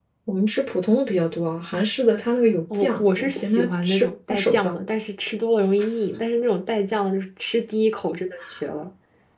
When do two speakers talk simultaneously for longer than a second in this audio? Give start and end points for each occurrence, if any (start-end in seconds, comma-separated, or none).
2.7-4.8